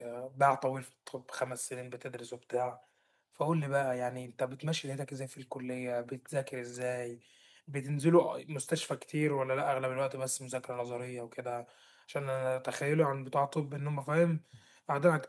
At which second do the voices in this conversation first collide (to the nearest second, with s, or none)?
none